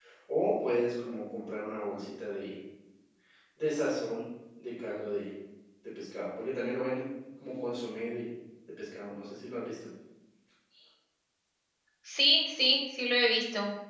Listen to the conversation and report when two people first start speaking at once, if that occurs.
none

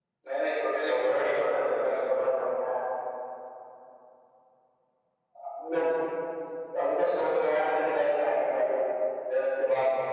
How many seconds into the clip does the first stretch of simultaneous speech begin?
0.8 s

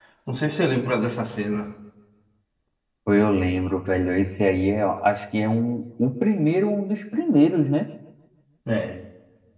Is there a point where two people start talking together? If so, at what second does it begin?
none

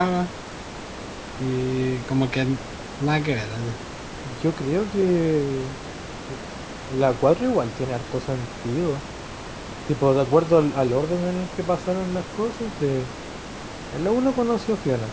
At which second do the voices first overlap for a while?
none

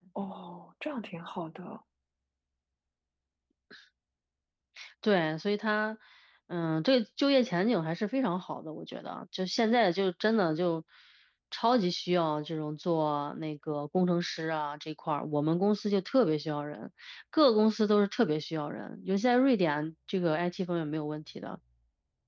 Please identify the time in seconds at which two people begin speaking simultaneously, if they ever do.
none

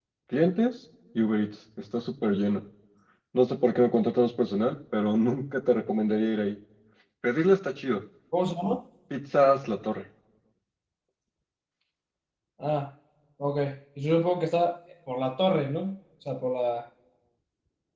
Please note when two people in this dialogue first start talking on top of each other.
none

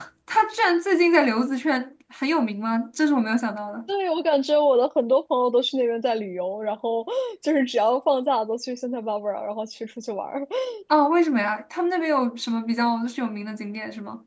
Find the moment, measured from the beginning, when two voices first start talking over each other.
none

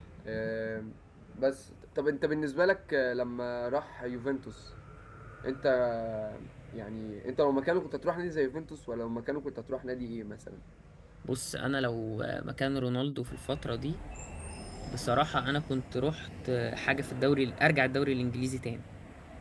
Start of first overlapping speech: none

